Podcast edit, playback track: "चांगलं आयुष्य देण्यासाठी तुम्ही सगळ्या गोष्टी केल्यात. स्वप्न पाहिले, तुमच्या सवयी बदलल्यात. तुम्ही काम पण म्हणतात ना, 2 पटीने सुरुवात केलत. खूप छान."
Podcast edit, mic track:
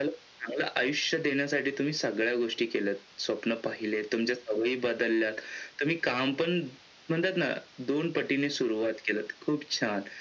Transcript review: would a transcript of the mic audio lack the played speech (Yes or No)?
No